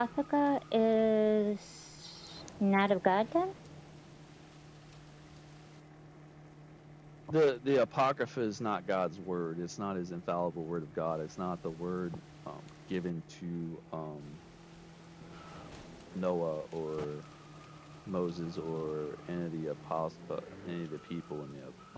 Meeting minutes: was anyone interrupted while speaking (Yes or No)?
No